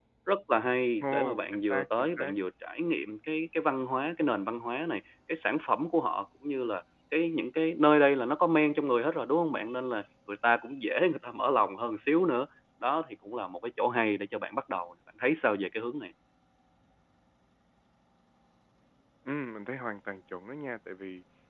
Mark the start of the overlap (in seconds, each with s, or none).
1.0 s